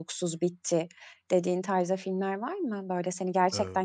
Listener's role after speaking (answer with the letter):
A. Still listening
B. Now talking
A